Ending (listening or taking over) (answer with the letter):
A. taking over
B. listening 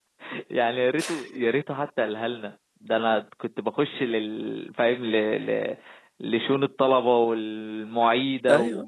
B